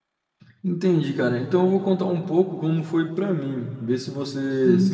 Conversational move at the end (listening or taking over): taking over